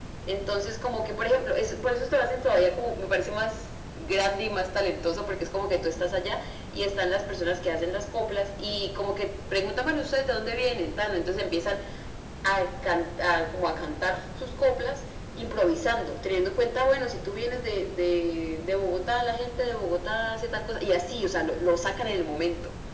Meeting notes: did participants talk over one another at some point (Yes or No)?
No